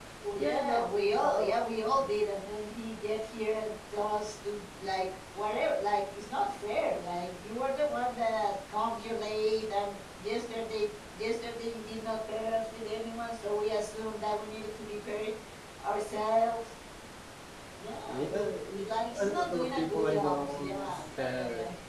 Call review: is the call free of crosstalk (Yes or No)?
No